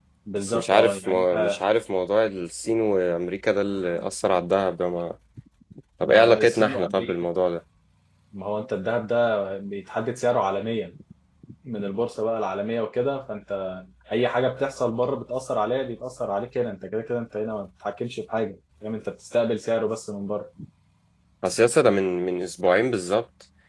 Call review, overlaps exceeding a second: present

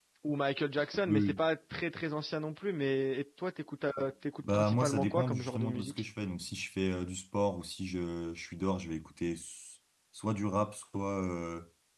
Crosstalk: present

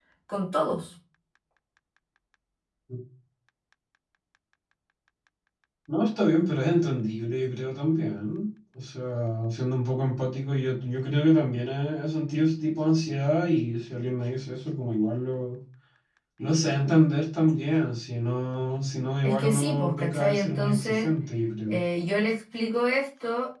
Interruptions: present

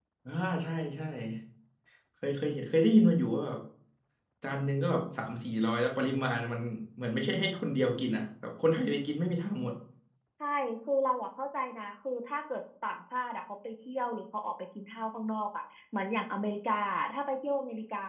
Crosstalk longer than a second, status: none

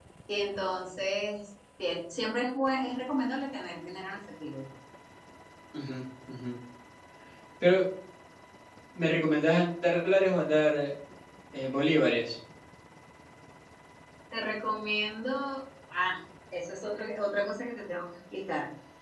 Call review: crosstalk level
none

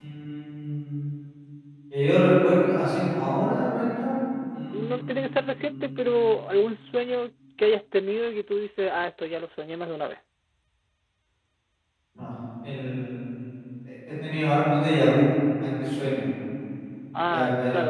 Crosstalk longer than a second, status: present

